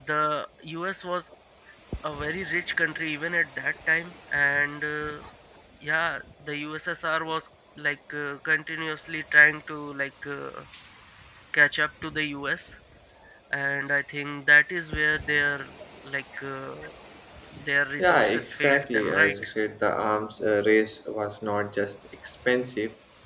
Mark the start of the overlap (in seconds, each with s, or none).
18.0 s